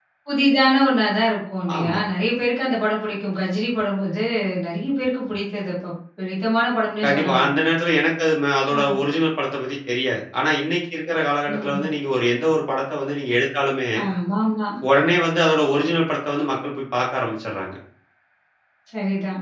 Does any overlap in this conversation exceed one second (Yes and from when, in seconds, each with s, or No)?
No